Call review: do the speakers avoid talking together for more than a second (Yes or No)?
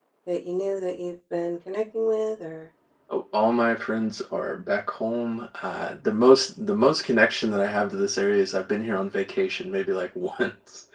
Yes